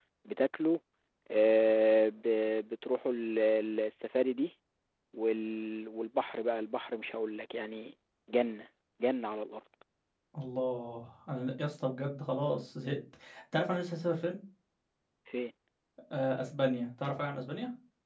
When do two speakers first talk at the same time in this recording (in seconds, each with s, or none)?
none